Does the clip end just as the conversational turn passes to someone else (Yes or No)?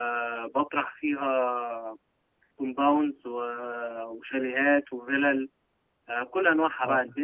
No